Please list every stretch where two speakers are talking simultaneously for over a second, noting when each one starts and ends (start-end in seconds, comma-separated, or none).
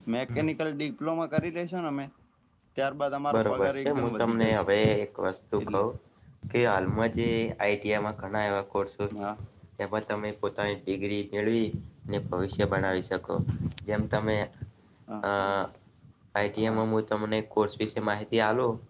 3.4-4.7